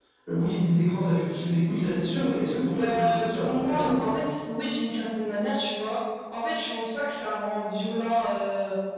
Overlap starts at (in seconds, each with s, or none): 2.8 s